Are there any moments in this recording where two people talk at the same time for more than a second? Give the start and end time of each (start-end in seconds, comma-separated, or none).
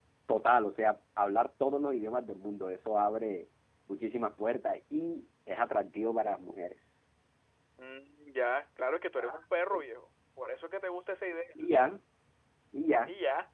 none